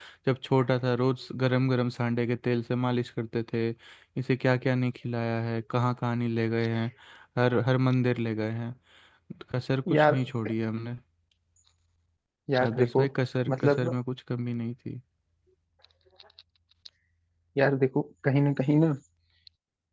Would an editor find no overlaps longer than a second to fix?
Yes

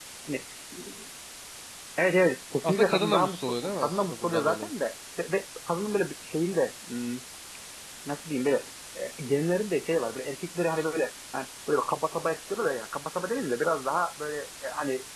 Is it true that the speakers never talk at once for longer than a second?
No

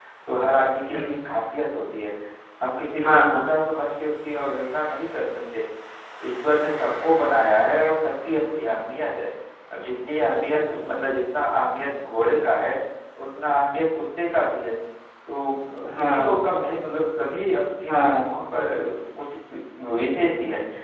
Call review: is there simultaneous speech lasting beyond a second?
No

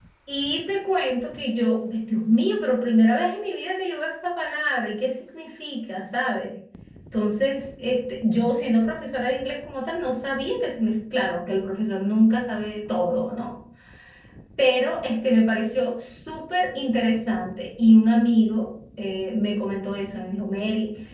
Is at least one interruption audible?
No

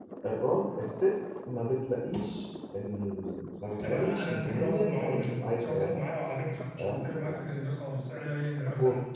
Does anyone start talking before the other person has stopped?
Yes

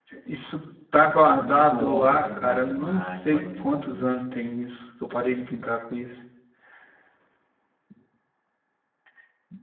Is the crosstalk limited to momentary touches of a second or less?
No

